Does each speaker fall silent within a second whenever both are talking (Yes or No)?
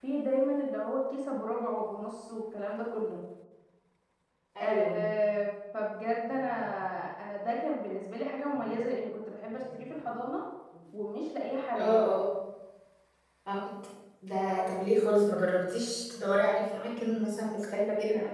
Yes